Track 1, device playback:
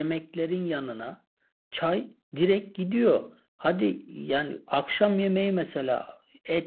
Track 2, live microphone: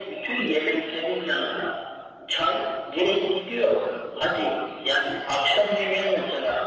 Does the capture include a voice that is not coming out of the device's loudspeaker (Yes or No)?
No